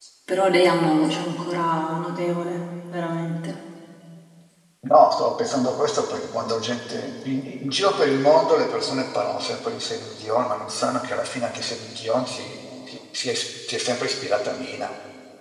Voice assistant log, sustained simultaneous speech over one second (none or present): none